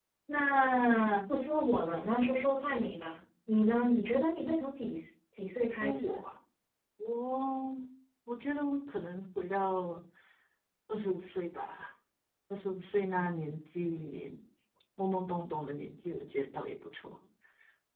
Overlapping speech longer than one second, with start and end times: none

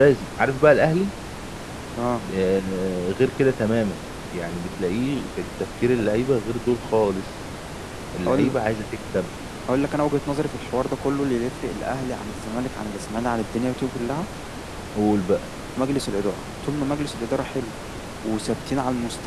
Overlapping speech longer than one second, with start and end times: none

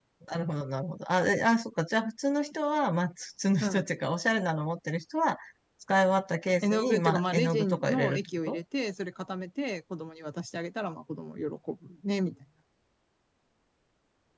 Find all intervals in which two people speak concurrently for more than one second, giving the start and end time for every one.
6.6-8.6

